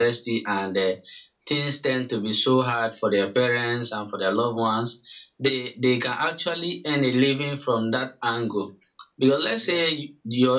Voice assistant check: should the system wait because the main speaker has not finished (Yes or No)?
Yes